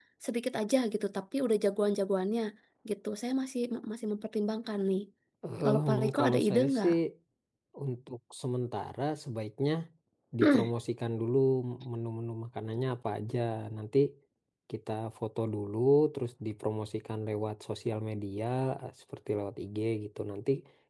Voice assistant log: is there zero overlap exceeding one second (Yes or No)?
No